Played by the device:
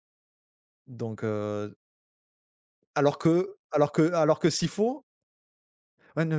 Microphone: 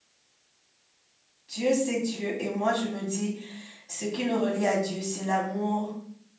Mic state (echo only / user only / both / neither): user only